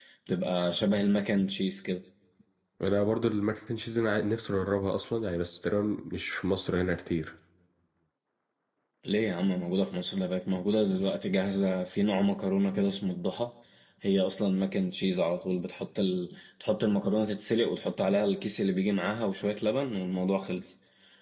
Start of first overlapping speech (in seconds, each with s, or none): none